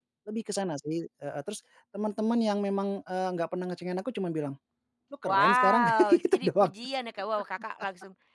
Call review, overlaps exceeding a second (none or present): present